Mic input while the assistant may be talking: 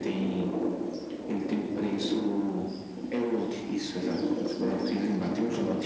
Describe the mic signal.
echo only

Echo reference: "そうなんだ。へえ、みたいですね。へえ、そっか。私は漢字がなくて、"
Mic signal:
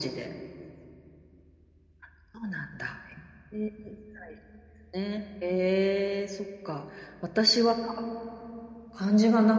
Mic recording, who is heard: echo only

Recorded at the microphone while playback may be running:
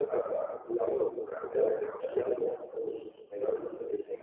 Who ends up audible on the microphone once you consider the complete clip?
echo only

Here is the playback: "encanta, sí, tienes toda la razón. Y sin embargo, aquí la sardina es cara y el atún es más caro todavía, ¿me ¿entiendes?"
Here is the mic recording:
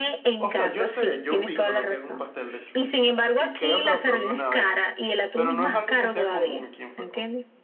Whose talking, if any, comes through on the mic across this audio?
both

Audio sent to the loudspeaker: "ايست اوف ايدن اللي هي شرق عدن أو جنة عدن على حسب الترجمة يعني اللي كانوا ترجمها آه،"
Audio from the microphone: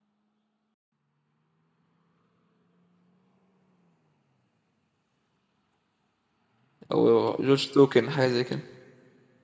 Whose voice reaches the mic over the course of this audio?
user only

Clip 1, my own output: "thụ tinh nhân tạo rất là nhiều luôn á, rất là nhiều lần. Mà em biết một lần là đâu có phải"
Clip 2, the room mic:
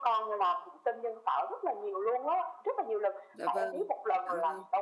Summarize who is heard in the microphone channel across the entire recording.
both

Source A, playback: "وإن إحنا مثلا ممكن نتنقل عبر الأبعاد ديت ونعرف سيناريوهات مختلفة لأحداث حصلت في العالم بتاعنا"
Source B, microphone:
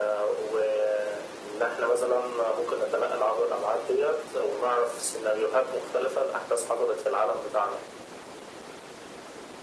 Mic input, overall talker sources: echo only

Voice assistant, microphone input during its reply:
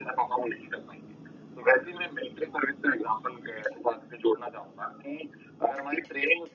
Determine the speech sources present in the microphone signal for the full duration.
echo only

